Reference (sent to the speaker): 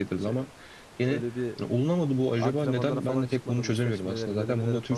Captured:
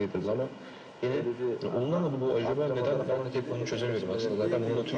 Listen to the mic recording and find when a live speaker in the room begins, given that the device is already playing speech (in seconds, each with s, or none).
1.6 s